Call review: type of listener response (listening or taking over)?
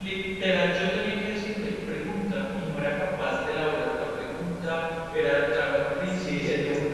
taking over